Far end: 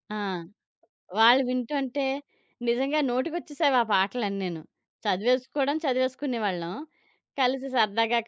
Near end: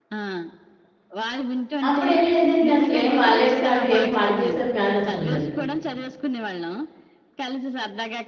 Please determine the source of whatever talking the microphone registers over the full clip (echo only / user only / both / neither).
both